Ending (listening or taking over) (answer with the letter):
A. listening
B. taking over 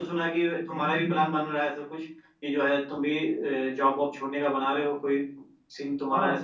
B